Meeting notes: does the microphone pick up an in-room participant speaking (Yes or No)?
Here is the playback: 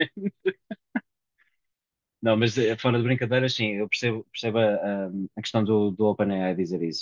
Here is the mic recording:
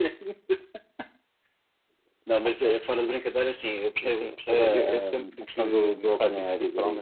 Yes